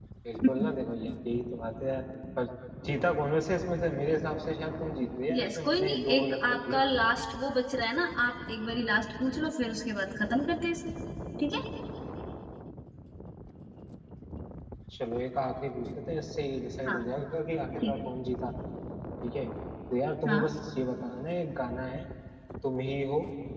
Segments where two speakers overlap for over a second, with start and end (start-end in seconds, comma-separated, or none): 5.3-6.8